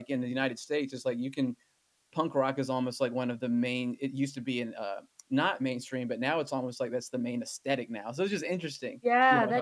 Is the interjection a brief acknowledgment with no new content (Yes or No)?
No